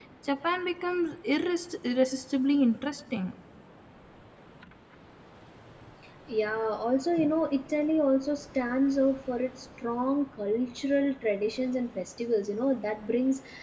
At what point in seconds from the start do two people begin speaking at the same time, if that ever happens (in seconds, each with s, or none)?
none